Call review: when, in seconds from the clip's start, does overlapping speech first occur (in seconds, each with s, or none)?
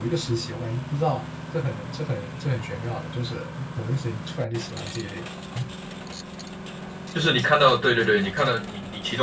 none